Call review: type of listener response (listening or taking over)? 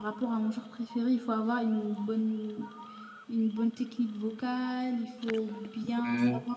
listening